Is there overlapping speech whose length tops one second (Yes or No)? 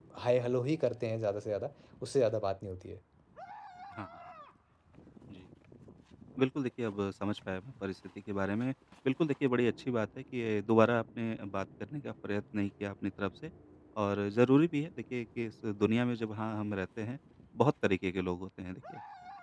No